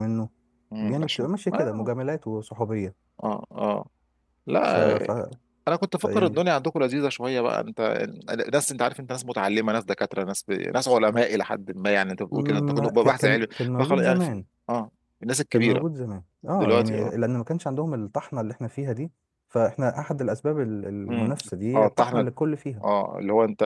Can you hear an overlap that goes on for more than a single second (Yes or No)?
Yes